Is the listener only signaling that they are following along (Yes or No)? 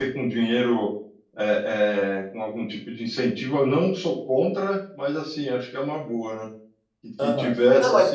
No